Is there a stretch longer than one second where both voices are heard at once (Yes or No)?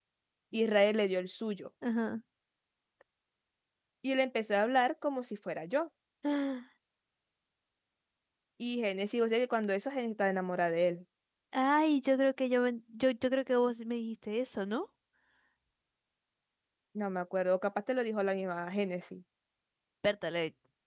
No